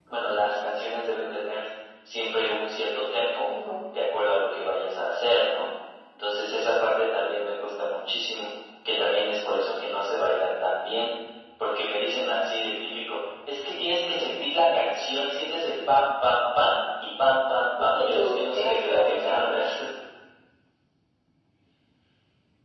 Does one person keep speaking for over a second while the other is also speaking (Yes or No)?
Yes